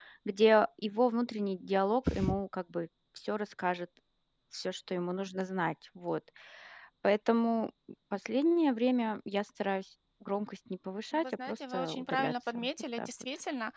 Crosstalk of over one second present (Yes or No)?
Yes